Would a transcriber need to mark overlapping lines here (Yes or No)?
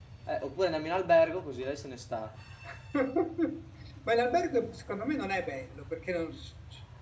No